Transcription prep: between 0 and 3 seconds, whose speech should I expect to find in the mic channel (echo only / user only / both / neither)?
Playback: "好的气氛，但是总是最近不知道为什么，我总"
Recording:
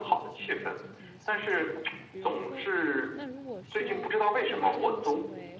both